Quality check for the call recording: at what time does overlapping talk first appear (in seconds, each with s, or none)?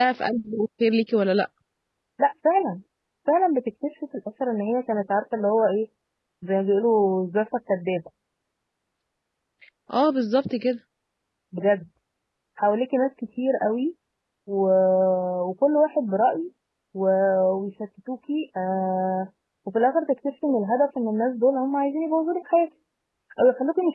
none